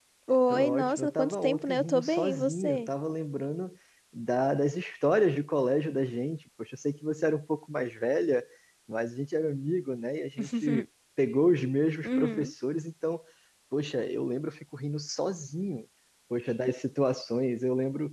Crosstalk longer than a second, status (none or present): present